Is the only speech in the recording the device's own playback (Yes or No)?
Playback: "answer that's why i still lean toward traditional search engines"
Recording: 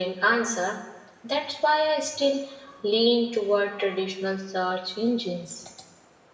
Yes